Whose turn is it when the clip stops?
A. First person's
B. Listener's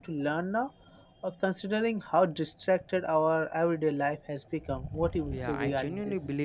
B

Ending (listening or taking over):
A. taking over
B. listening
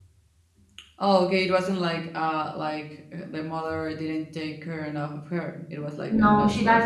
A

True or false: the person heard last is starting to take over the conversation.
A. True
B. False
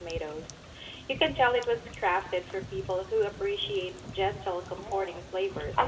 A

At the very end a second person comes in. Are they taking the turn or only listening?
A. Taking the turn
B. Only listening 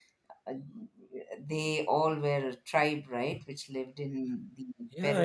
A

